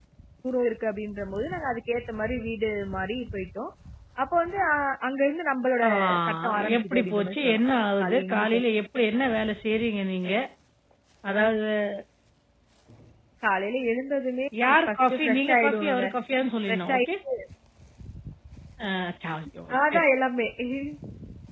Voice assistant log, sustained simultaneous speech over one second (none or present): present